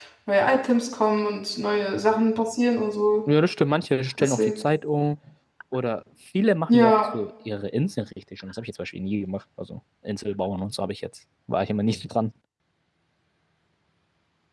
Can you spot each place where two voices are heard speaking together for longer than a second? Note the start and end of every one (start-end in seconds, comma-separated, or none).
none